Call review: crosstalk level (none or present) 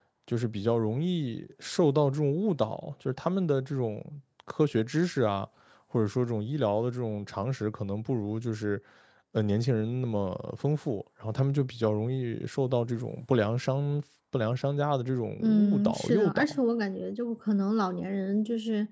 present